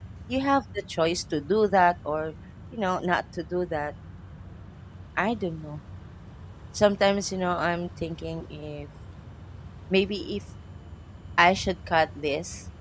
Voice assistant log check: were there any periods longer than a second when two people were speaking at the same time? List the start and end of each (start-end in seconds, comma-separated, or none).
none